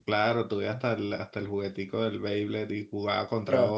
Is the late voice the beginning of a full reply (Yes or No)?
Yes